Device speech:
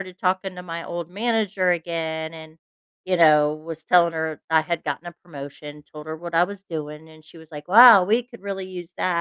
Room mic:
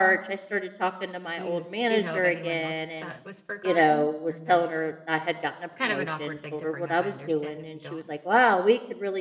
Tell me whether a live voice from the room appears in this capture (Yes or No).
Yes